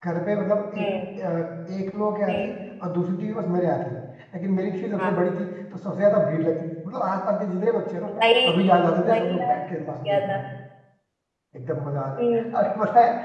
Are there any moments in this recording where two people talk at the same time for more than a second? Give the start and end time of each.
none

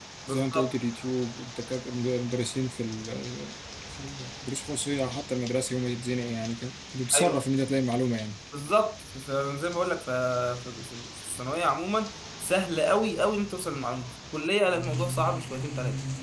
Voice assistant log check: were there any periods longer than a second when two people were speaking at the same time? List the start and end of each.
none

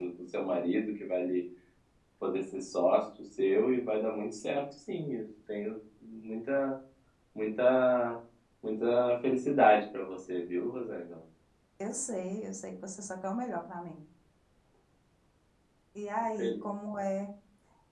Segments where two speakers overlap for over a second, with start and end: none

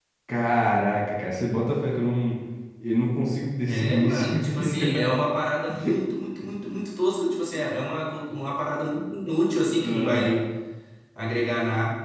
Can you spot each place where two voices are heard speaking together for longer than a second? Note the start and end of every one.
3.7-5.1

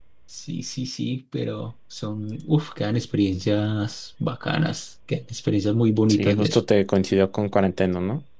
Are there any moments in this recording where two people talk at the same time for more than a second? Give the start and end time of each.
none

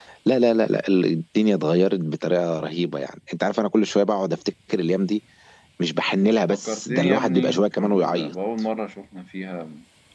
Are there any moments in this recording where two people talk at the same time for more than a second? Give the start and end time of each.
6.5-8.3

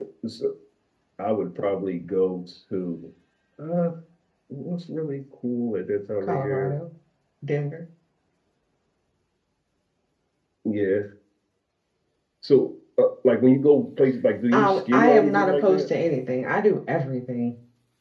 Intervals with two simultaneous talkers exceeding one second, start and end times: 14.5-15.9

